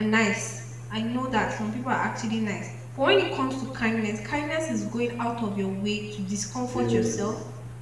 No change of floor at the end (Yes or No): Yes